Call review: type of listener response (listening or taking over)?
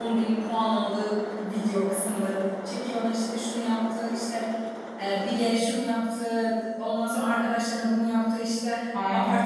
listening